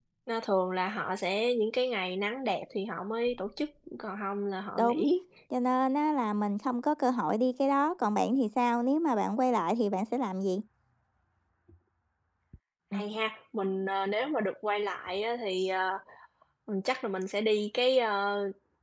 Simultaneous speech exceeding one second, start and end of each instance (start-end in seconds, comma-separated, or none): none